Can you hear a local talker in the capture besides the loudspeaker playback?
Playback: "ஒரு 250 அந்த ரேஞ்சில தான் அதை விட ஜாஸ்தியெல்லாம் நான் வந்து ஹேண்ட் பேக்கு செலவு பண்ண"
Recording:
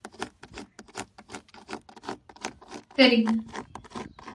Yes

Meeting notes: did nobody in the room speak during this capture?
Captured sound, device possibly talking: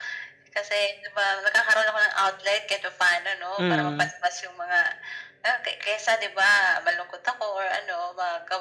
No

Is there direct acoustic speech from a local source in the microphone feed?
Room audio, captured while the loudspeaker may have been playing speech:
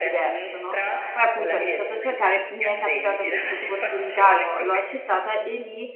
Yes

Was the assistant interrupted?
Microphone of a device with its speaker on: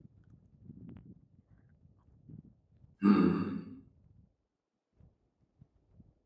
Yes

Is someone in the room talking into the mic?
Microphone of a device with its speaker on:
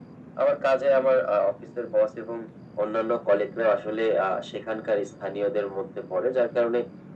No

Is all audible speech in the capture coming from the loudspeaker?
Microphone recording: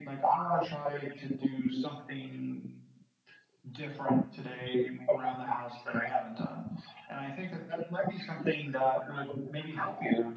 Yes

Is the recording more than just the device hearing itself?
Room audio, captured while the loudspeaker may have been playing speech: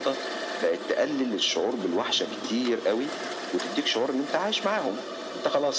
No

